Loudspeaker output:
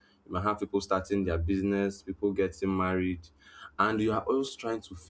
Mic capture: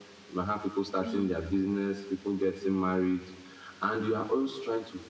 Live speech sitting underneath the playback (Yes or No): Yes